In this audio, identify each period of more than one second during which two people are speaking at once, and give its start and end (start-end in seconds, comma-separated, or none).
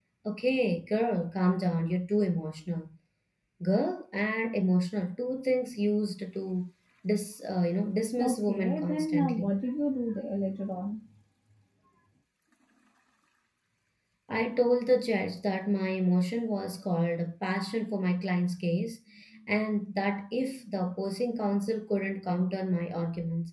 8.2-9.4